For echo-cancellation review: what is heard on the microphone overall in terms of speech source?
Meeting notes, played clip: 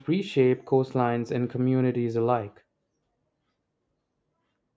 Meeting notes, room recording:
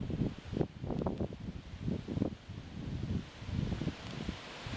neither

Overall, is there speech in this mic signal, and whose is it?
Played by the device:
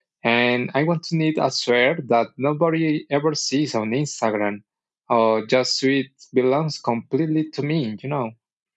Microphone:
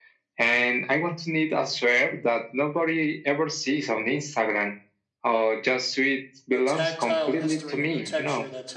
both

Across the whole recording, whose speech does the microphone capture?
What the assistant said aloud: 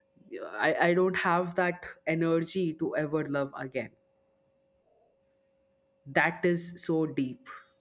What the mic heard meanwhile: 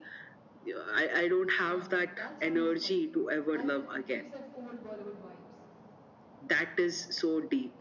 both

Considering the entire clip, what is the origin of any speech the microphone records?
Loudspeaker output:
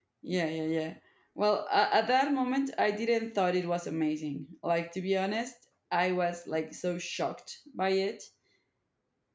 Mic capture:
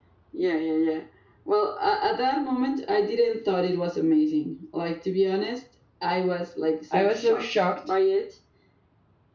both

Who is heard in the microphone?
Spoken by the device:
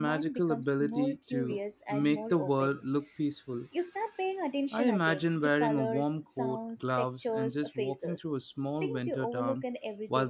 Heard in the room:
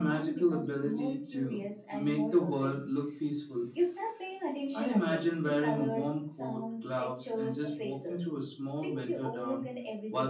echo only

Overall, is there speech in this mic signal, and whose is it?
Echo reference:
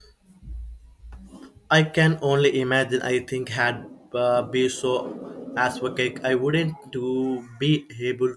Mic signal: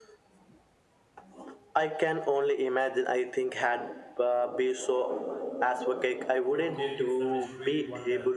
both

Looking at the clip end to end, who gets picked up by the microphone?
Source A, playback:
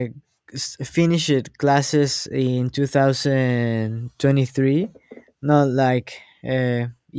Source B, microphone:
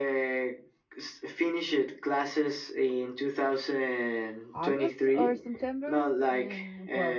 both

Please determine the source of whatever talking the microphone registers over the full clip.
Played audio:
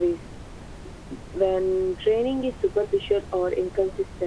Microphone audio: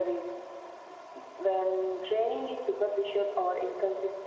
echo only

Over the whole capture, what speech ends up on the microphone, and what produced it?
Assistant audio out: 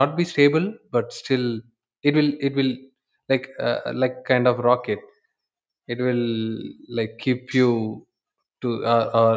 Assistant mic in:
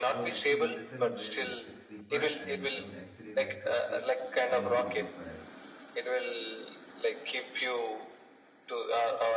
both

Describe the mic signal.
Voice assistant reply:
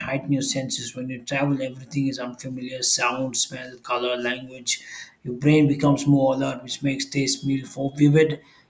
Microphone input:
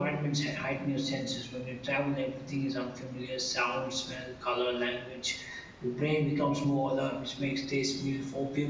echo only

